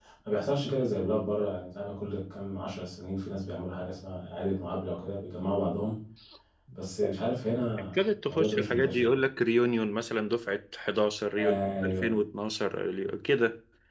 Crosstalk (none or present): present